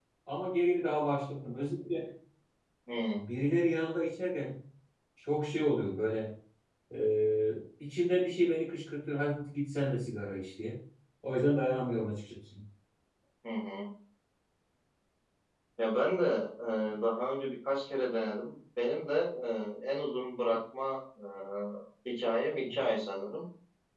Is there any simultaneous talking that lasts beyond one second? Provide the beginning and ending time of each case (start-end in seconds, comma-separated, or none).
none